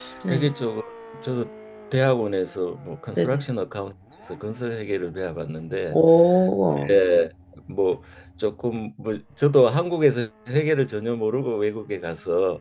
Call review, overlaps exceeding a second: none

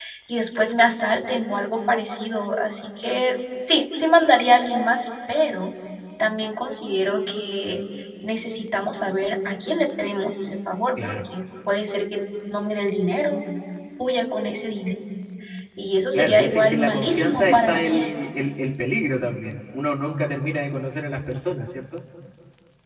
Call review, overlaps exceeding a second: present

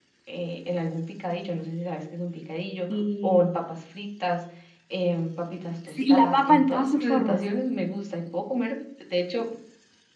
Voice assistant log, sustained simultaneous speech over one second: present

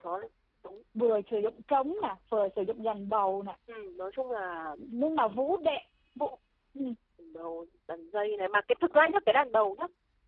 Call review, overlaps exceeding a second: none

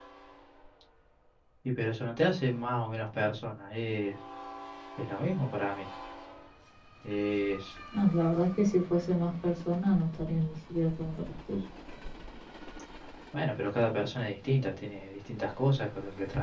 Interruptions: none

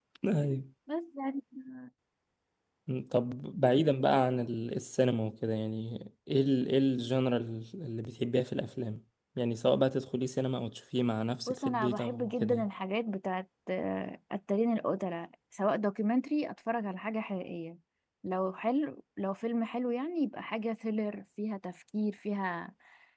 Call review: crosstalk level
present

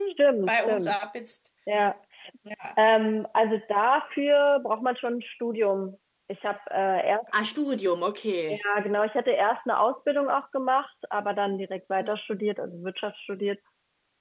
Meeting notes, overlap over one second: none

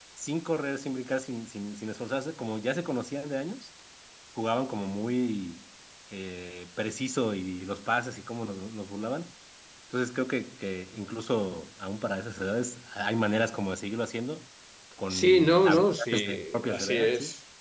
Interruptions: present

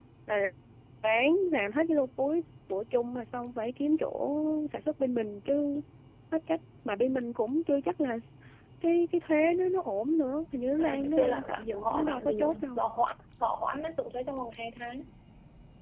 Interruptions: present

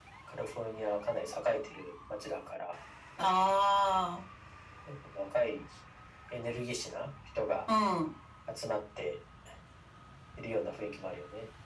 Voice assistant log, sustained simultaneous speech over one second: none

